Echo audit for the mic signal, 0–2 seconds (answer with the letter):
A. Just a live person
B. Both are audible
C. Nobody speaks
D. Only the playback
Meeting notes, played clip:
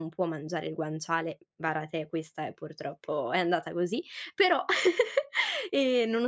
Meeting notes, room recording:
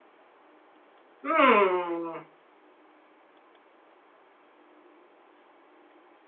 A